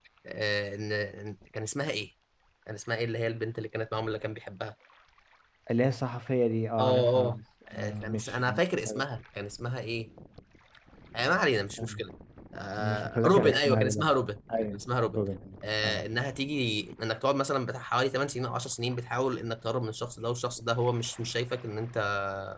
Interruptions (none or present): present